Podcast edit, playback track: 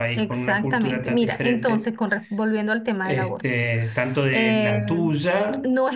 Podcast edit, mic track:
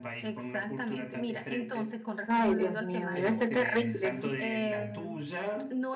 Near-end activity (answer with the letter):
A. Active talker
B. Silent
A